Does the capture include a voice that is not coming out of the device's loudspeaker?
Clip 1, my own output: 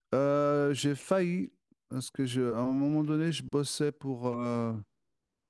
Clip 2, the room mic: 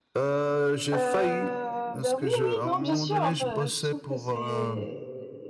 Yes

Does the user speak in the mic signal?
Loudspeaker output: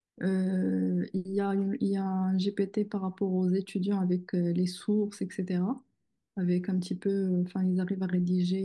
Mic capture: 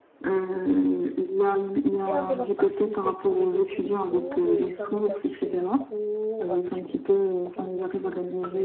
Yes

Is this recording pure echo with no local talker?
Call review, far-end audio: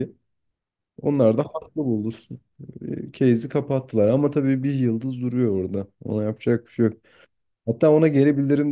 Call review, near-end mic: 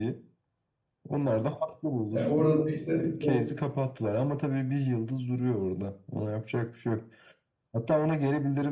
No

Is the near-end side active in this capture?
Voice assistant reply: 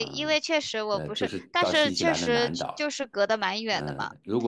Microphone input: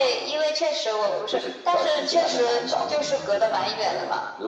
Yes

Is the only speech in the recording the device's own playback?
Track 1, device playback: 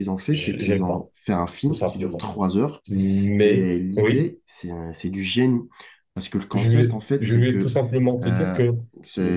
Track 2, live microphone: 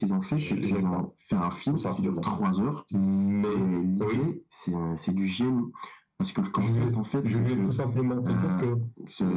Yes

